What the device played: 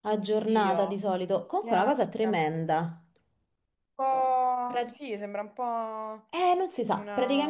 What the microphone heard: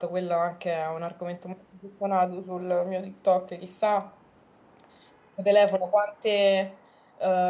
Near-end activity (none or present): present